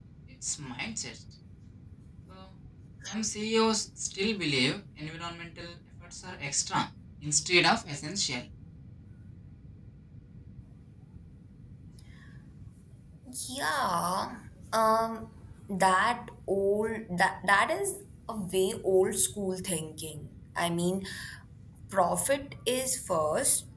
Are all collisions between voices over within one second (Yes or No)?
Yes